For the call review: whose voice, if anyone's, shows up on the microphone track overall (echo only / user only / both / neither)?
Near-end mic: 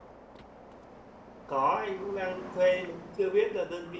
user only